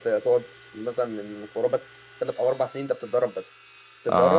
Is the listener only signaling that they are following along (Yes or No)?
Yes